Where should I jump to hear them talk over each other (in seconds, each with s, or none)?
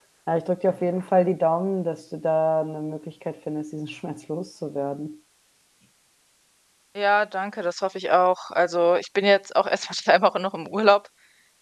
none